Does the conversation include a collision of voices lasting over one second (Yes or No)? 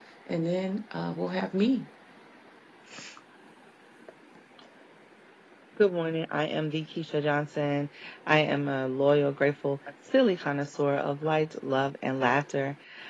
No